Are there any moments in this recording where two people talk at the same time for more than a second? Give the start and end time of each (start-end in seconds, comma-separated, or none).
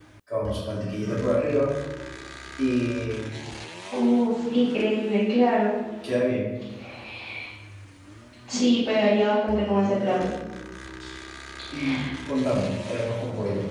none